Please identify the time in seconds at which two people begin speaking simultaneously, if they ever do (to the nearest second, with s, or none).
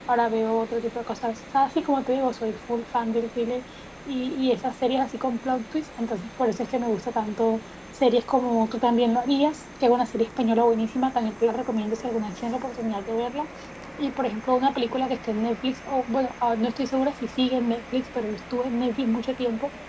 none